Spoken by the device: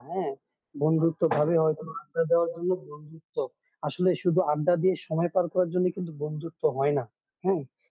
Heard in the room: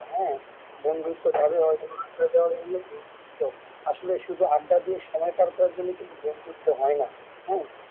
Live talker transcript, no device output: none

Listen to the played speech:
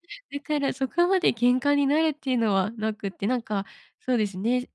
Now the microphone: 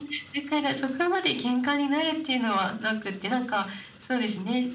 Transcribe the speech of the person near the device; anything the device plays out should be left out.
none

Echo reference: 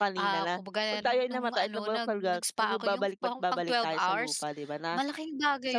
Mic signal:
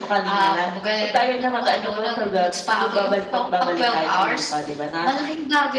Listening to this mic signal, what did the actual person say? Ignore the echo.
none

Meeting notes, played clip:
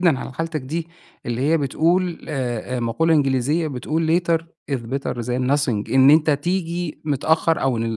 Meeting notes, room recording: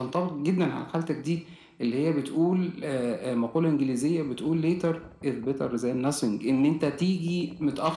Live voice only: none

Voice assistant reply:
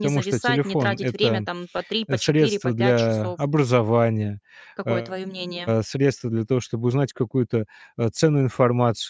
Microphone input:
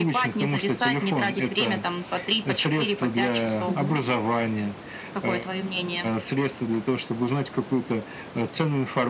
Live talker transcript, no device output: Мгм.

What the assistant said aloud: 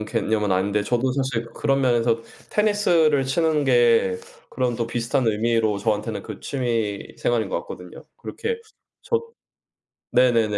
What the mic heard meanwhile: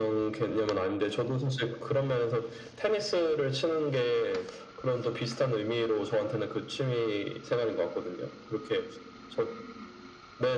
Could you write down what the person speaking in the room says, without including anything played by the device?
none

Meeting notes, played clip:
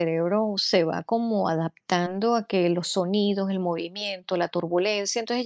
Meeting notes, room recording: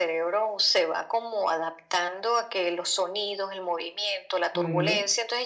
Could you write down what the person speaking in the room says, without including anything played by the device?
Ujú.

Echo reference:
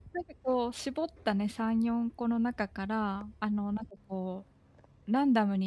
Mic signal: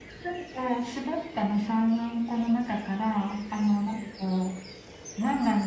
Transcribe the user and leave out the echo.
none

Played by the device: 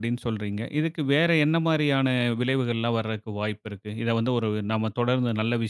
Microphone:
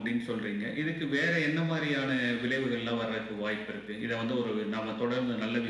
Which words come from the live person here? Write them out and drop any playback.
none

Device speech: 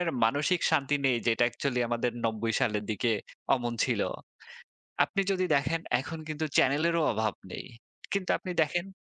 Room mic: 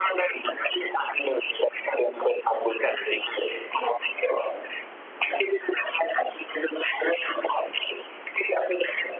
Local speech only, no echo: none

